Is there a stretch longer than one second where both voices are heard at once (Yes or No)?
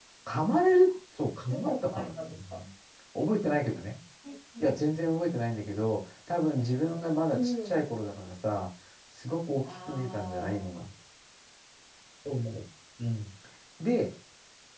Yes